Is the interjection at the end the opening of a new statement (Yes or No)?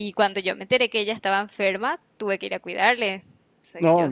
Yes